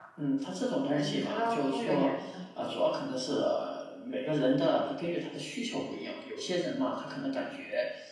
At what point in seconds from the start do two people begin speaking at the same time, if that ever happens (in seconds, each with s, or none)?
0.9 s